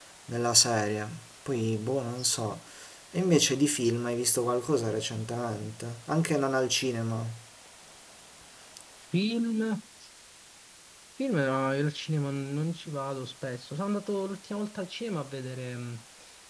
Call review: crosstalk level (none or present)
none